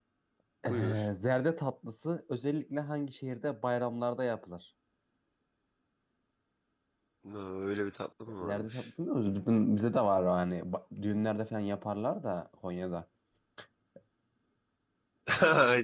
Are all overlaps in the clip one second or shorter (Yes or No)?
Yes